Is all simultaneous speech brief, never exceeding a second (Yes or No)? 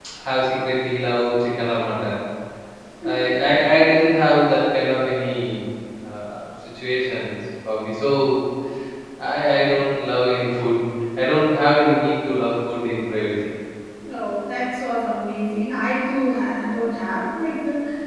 Yes